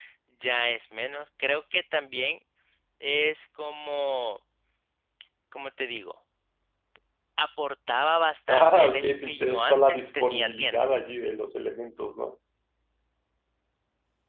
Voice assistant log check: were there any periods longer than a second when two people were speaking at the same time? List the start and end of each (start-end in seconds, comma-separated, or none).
8.5-10.9